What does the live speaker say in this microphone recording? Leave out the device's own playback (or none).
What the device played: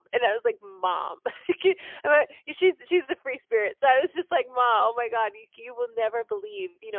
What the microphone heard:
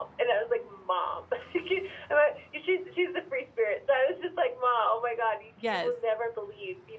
Yes.